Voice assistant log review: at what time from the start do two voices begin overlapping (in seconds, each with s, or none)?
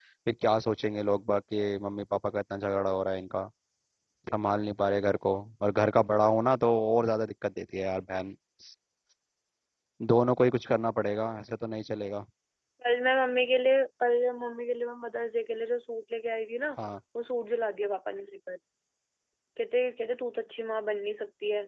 none